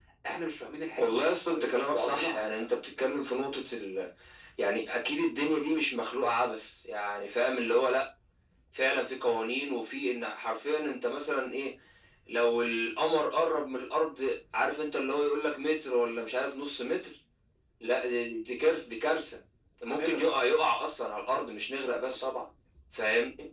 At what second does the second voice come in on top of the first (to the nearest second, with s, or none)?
1 s